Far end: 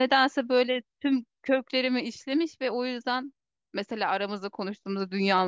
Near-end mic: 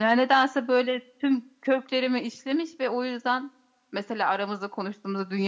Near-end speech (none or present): none